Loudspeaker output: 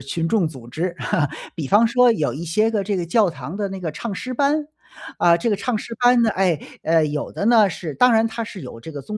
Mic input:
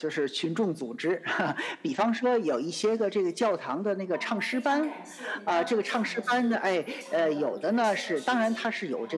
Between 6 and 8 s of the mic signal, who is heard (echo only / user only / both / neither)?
both